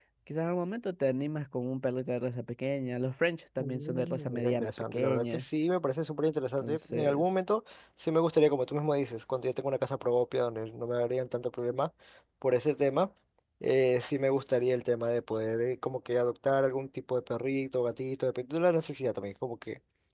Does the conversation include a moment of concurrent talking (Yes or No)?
Yes